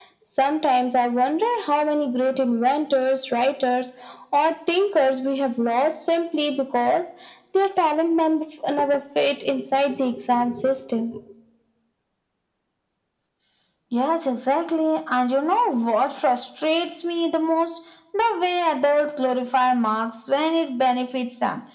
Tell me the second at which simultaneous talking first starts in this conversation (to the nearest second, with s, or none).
none